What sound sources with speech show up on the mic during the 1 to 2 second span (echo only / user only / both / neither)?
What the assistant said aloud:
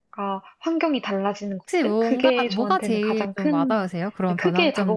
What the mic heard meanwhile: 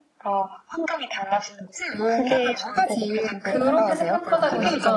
echo only